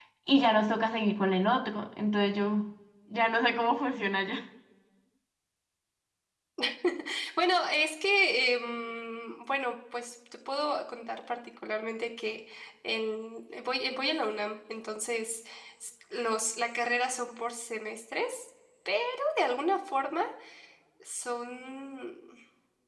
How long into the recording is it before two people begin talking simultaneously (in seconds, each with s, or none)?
none